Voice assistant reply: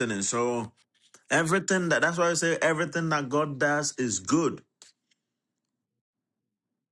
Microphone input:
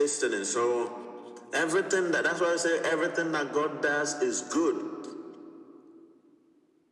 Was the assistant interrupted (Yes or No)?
No